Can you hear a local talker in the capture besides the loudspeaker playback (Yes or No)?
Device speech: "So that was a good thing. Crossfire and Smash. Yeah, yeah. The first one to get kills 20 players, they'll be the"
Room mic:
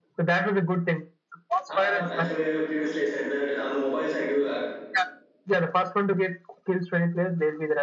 Yes